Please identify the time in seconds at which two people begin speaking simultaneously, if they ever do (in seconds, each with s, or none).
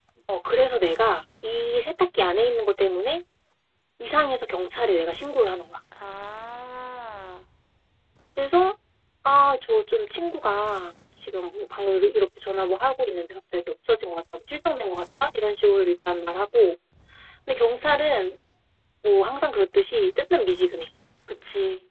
none